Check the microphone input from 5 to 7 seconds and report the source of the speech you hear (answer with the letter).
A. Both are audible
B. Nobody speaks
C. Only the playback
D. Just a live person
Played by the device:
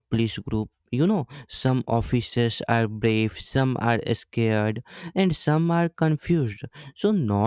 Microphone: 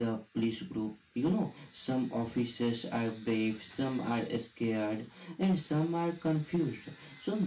C